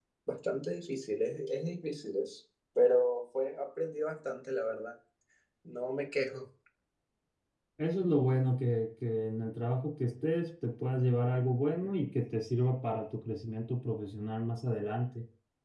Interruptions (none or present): none